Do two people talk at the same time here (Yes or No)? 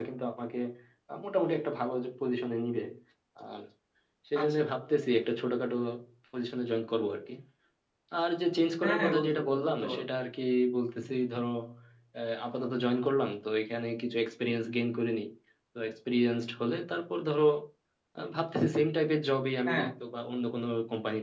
Yes